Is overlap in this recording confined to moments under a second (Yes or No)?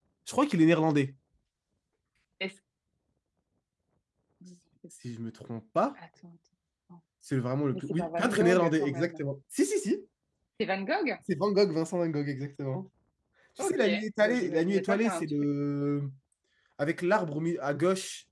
No